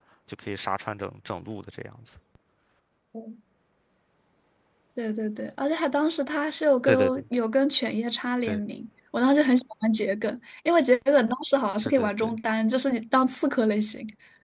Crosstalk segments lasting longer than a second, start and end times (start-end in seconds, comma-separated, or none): none